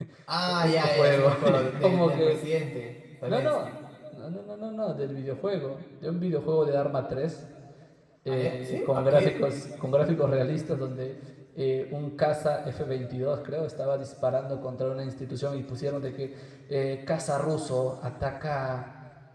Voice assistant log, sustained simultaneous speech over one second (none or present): present